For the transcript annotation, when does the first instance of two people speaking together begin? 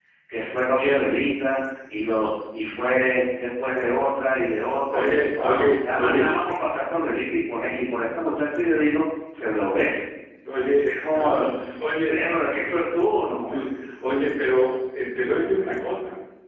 5 s

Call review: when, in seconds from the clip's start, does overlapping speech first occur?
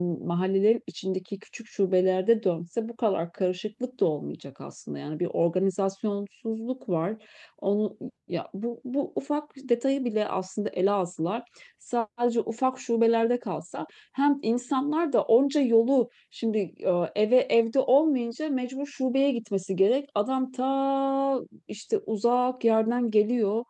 none

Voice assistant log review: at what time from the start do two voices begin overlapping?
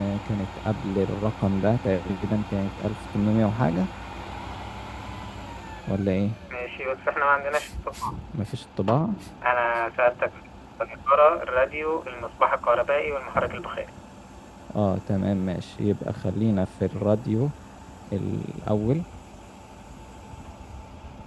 none

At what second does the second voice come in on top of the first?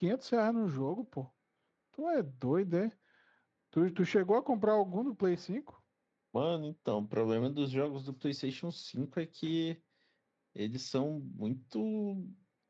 none

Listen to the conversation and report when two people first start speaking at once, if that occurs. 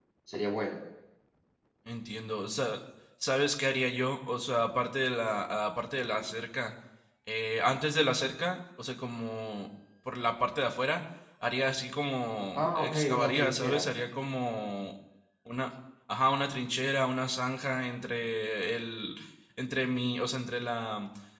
13 s

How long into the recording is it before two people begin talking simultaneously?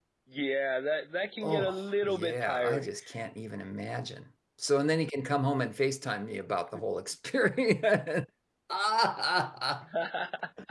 1 s

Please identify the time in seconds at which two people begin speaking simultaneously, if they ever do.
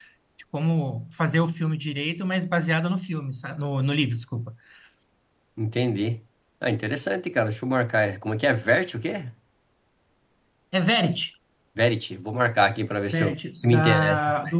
13 s

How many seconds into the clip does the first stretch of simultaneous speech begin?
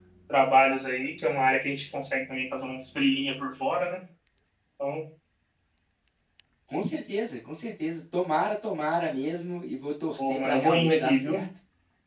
10 s

